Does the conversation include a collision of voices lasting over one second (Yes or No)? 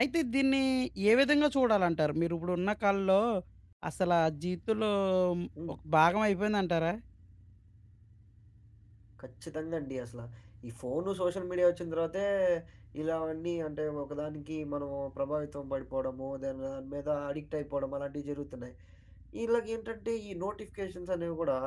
No